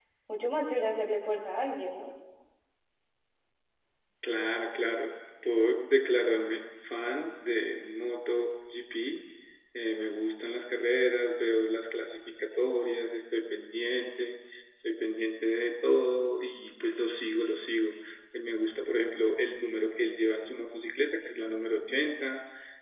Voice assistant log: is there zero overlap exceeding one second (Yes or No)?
Yes